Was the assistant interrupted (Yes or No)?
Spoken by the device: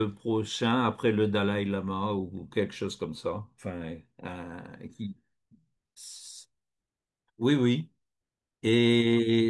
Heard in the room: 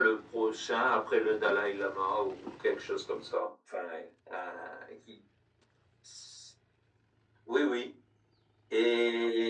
No